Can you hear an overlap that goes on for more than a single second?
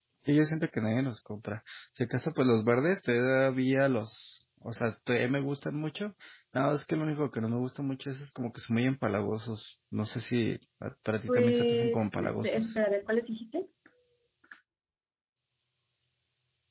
Yes, from 11.3 s

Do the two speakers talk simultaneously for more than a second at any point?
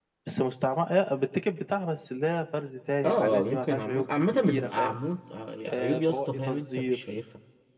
Yes, from 3.0 s

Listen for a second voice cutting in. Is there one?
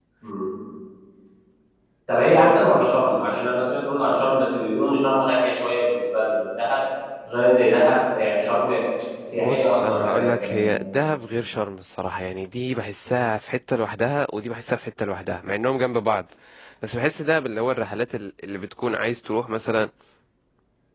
Yes, from 9.4 s

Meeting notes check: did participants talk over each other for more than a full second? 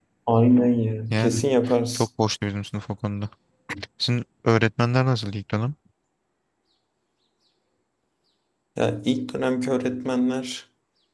No

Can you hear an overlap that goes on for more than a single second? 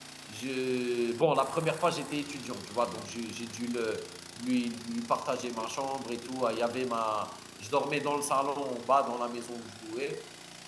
No

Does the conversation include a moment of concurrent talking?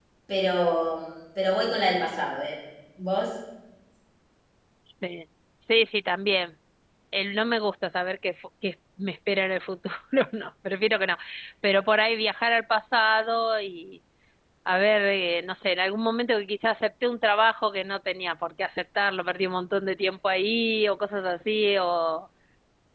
No

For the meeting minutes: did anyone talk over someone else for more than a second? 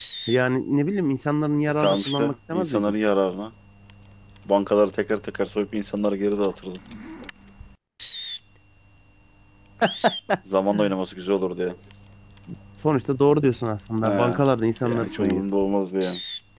Yes, from 1.7 s

